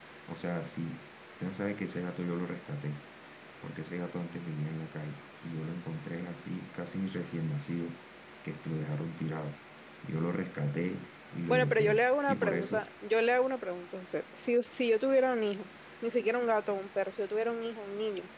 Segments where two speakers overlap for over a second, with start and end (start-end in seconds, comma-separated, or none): 11.5-12.8